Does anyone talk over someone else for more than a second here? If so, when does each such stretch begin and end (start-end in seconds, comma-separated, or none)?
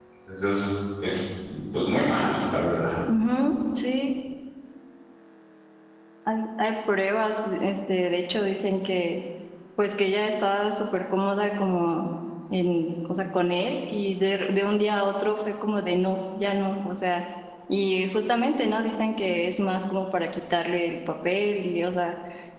none